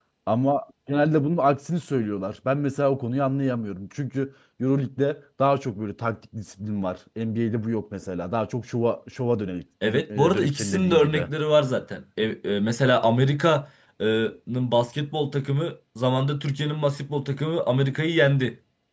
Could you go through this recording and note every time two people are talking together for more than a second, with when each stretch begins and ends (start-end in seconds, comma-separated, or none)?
9.8-11.3